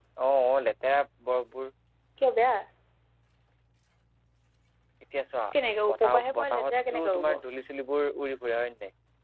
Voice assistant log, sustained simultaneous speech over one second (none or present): present